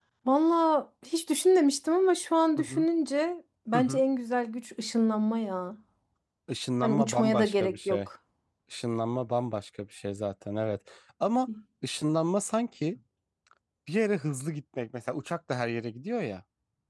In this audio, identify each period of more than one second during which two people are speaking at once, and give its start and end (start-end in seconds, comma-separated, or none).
6.8-8.1